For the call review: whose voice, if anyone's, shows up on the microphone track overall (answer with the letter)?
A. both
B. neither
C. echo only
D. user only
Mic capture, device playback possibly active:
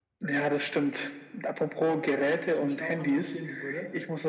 A